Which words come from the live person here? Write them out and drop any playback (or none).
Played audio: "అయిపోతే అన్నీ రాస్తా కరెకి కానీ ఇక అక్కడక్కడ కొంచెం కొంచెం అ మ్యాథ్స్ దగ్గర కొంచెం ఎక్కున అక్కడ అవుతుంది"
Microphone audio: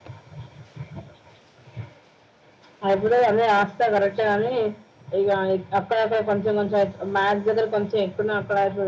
none